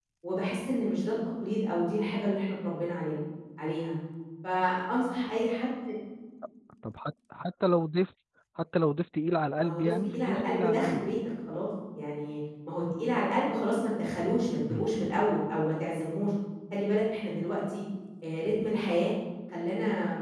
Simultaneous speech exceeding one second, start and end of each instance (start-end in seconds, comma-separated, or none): 9.6-11.0